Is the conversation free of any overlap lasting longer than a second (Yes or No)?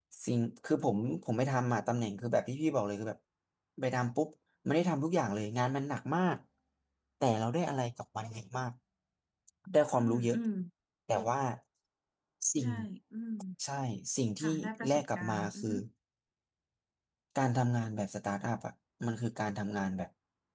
No